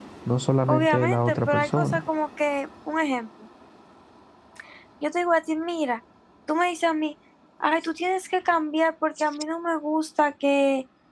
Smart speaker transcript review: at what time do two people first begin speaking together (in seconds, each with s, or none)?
0.7 s